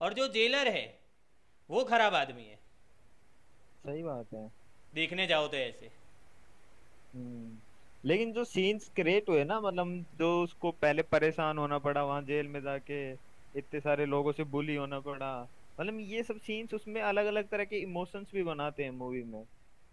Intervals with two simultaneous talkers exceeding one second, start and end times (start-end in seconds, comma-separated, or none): none